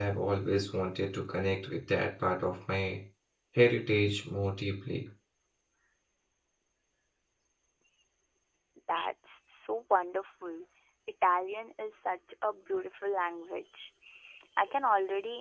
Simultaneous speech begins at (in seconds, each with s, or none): none